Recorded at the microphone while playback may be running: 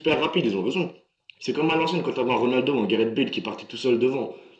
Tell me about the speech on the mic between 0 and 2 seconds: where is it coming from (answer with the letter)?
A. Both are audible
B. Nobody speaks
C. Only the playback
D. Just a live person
C